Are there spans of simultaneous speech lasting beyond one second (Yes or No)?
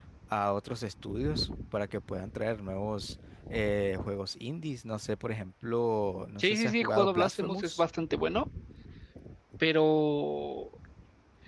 Yes